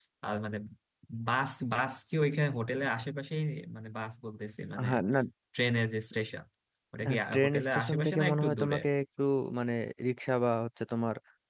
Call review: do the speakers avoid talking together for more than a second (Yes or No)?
No